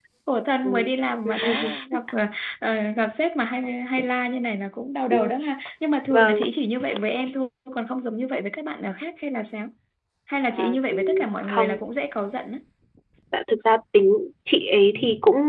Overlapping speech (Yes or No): Yes